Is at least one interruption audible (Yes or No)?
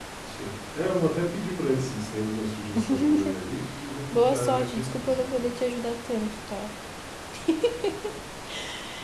Yes